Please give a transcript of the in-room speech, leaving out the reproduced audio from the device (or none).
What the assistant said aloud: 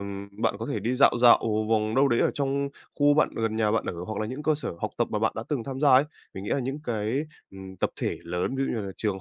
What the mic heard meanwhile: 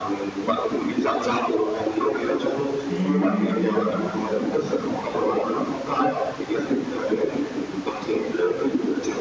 À,